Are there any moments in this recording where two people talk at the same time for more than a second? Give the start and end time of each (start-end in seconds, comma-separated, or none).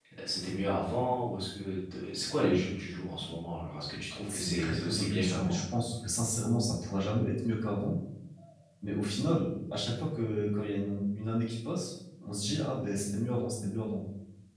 4.3-5.6